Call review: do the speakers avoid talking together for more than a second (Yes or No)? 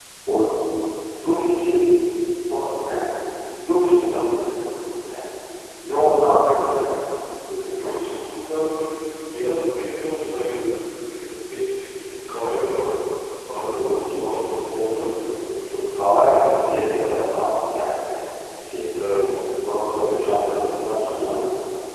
No